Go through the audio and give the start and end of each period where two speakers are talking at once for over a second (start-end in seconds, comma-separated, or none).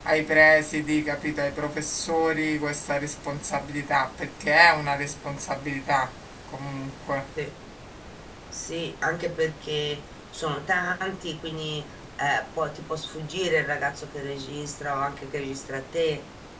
none